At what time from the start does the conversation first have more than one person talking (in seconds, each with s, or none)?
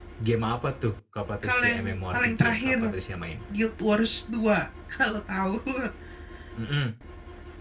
1.4 s